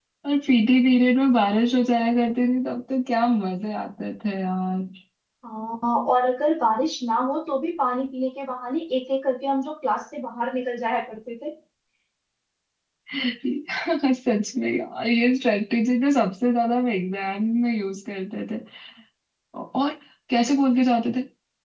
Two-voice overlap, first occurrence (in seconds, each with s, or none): none